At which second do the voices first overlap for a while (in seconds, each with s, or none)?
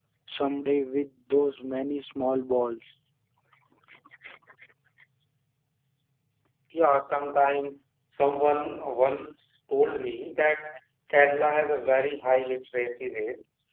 none